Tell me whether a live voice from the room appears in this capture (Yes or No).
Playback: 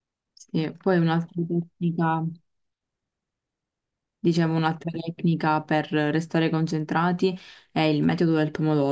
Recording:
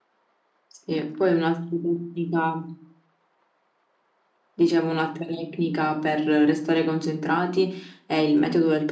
No